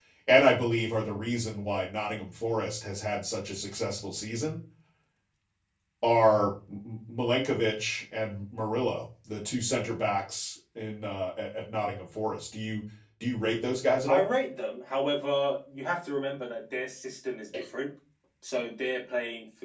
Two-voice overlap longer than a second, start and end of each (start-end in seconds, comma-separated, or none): none